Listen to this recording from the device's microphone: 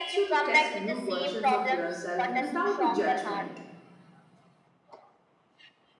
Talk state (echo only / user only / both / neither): both